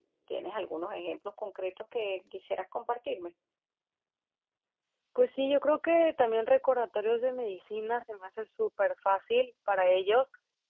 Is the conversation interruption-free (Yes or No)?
Yes